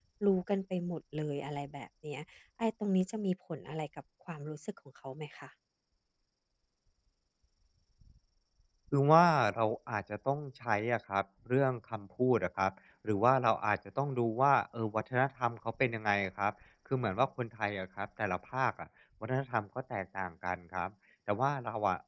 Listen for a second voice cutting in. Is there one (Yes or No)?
No